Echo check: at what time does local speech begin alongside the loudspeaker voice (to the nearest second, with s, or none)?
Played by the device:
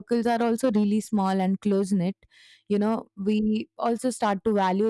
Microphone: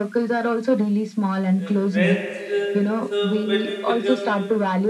2 s